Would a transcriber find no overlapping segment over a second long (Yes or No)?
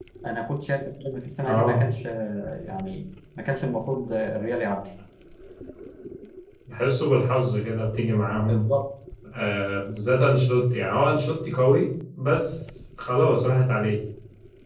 Yes